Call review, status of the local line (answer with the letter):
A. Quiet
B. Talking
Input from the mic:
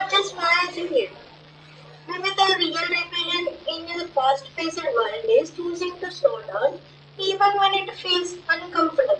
A